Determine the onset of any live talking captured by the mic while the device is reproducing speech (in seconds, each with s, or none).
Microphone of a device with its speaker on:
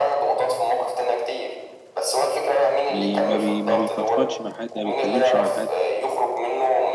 2.9 s